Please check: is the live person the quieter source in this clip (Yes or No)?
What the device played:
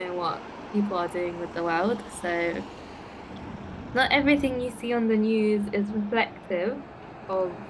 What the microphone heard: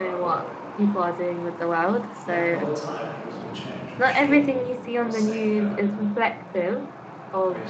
Yes